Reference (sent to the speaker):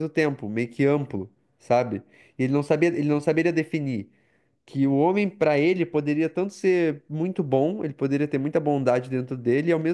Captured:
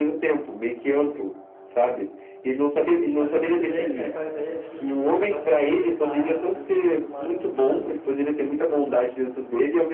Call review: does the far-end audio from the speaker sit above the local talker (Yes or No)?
Yes